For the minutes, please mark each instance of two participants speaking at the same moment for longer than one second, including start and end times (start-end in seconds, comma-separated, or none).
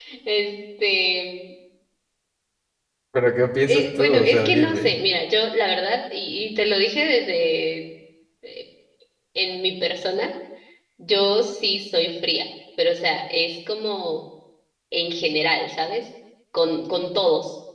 3.7-4.9